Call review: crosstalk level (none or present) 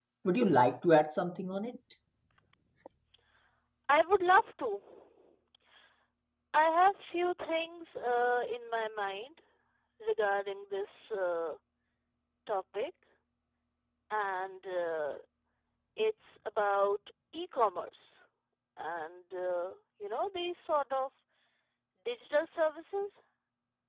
none